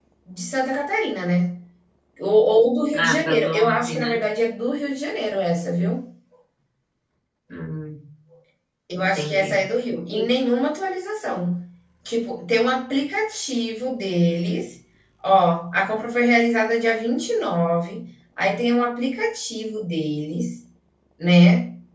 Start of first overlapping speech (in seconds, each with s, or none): 2.9 s